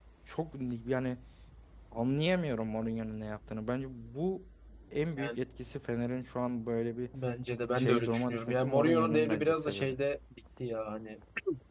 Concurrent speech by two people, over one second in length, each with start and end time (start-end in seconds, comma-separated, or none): 7.8-10.0